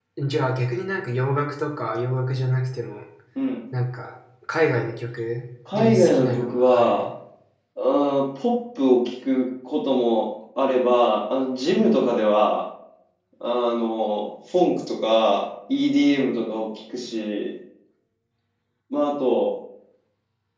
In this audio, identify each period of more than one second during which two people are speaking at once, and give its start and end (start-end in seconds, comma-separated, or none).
5.7-7.1